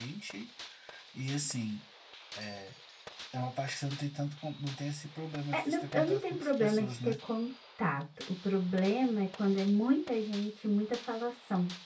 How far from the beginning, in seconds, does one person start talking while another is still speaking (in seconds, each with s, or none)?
5.5 s